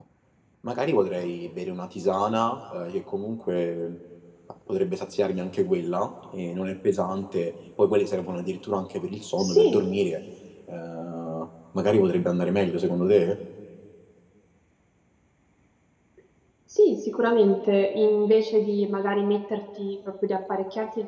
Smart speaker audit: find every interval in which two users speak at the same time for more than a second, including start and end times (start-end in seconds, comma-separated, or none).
none